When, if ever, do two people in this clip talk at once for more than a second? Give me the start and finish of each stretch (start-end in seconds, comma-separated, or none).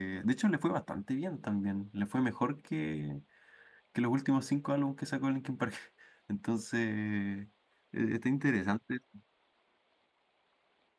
none